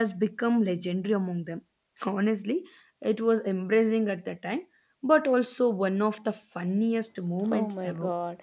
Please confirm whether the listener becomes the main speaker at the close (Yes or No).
Yes